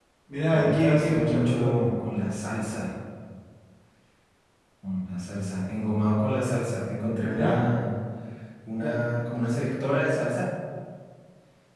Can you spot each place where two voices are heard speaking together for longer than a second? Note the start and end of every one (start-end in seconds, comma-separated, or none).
0.5-1.9